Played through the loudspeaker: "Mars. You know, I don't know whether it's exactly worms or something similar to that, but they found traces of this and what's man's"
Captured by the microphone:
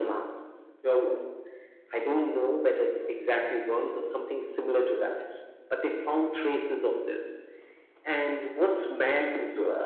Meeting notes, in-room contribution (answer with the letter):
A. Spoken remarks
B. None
B